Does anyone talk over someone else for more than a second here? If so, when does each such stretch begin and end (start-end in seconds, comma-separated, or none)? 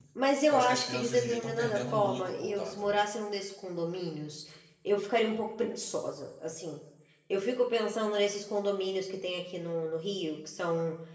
0.5-3.0